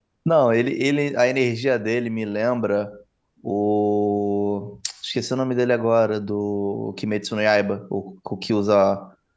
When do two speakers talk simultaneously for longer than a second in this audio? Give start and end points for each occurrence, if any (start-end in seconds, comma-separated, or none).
none